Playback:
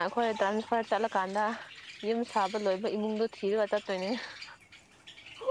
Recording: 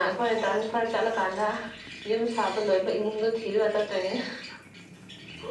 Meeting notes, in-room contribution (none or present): none